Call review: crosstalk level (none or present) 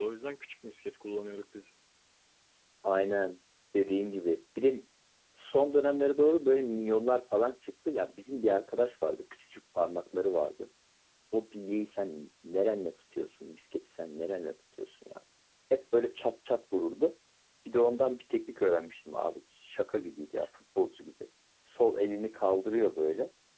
none